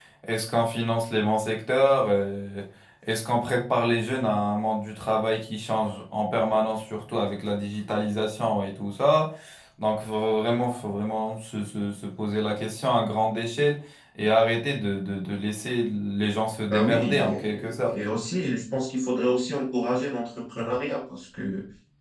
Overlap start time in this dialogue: 17 s

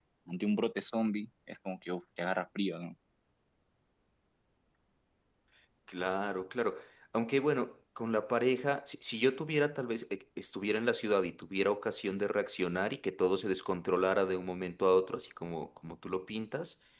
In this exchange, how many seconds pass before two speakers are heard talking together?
none

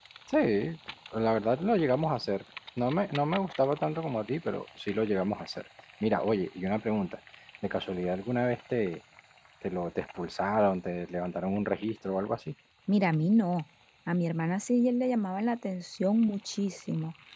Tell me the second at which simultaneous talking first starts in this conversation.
none

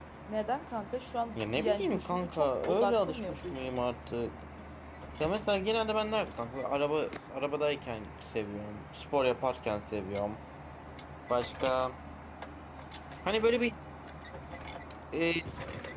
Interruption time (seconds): 1 s

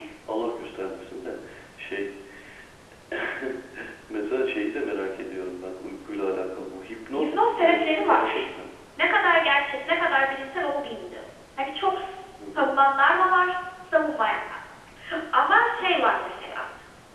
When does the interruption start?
7 s

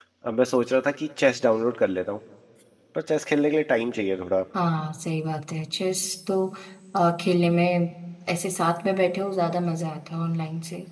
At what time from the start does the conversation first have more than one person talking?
none

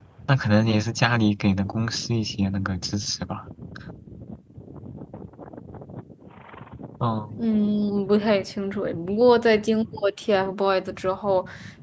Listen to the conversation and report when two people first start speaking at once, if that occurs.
none

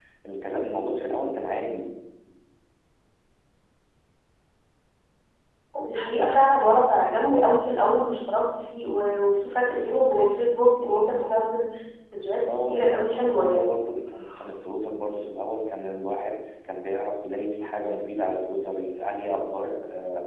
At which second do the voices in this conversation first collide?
12 s

